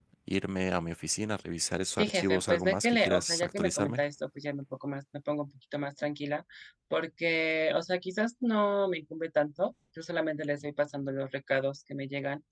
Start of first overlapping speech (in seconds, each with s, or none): 2.0 s